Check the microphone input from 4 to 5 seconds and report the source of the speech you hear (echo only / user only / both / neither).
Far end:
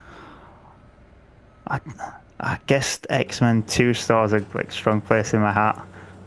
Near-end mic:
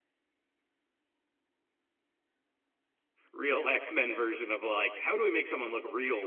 user only